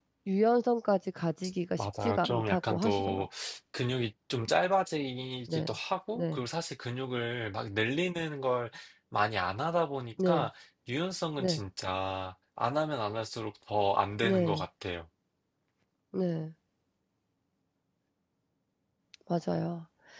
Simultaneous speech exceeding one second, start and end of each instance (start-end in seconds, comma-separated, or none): 1.8-3.3